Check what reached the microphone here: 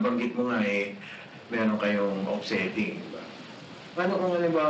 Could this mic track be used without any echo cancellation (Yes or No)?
No